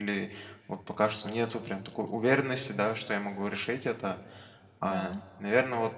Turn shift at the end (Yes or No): No